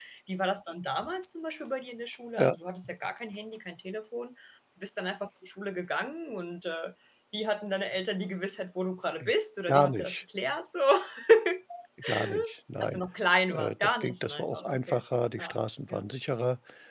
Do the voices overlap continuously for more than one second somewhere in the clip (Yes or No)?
Yes